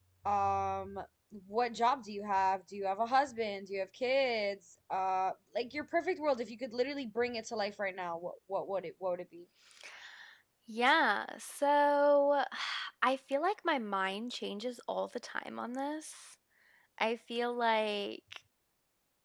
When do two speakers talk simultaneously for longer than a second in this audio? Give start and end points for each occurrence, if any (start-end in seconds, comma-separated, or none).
none